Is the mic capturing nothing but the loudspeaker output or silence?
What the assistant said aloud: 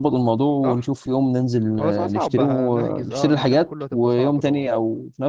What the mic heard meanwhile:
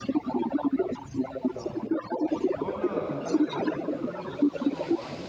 No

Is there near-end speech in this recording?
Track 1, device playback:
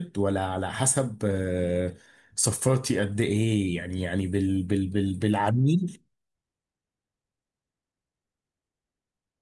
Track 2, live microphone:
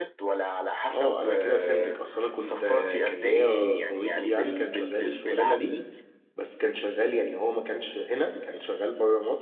Yes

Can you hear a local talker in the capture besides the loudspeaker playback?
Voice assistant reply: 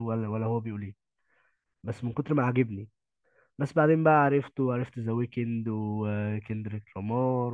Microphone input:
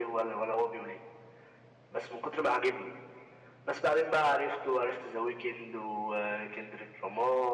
No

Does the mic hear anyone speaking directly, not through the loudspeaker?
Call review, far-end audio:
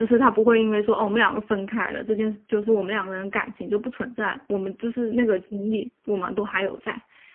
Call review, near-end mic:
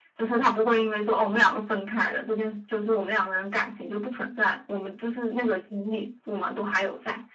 No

